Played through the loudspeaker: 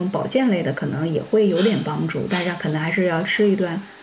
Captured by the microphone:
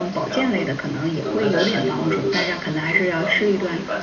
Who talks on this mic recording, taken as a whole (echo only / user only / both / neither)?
both